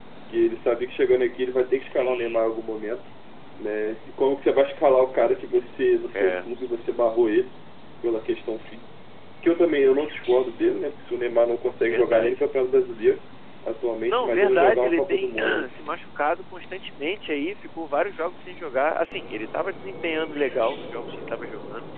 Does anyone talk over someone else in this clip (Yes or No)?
Yes